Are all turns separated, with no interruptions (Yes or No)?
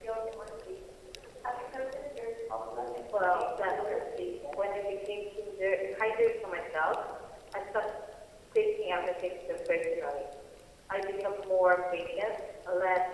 No